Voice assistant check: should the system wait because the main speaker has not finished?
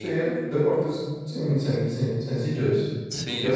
No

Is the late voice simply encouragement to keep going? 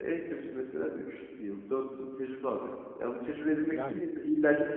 Yes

